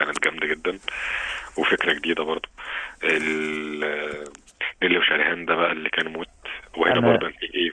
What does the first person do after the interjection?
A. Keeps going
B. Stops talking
A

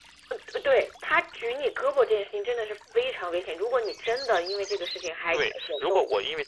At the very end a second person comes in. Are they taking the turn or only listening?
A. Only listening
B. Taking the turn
B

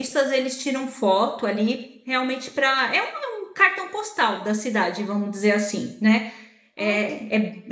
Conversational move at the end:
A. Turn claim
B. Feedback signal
B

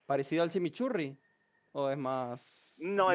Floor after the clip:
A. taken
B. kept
A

